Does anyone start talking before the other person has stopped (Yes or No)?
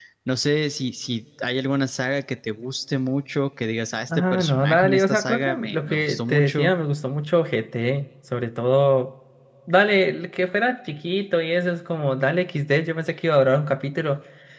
Yes